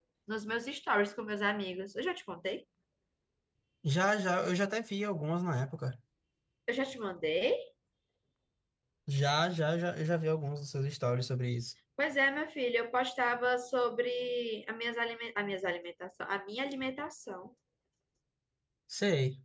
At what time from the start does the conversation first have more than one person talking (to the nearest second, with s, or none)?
none